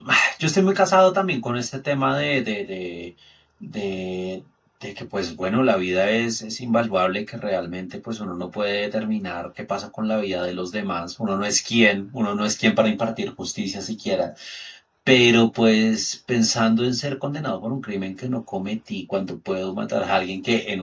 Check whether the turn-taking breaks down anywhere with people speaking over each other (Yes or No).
No